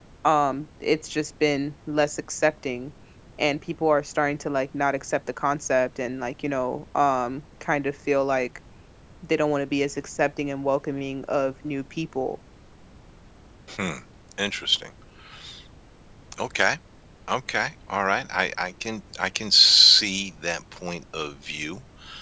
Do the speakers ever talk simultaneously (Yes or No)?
No